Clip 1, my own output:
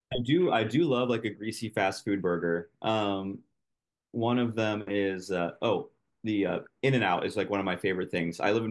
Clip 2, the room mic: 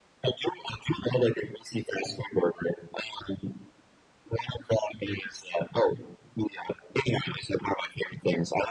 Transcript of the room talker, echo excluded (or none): none